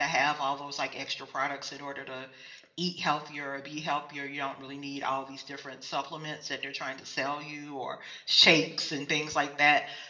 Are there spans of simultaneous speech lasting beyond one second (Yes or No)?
No